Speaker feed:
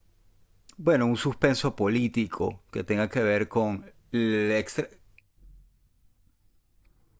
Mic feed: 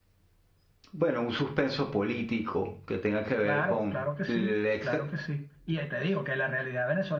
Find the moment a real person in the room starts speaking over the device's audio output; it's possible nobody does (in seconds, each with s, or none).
3.4 s